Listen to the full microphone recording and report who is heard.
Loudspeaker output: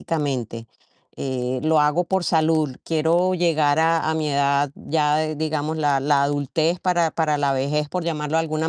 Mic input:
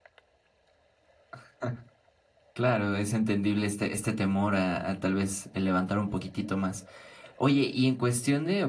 user only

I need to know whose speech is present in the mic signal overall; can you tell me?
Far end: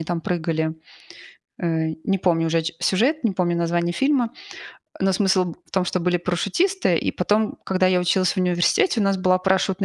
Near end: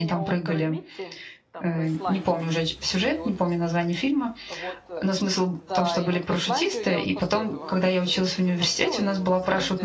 both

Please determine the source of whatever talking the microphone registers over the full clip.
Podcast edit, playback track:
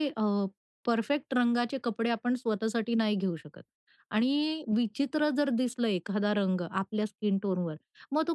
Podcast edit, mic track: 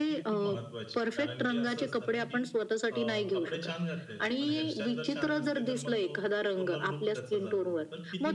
both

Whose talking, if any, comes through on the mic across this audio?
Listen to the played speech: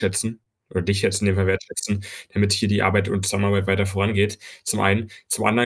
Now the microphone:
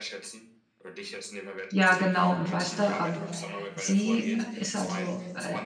both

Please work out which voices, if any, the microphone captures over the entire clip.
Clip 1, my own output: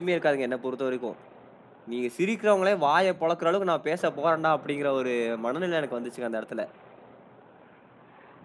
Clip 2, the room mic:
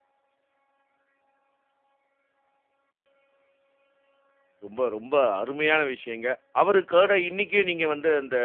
user only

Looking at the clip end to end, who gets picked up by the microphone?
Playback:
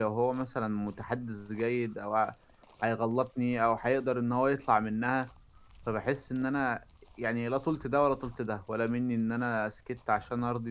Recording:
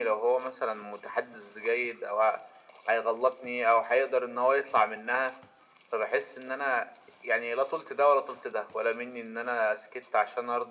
echo only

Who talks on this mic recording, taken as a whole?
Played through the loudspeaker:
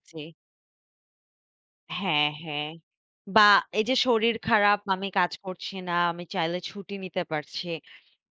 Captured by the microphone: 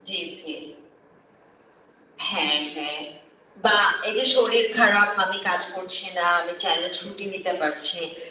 echo only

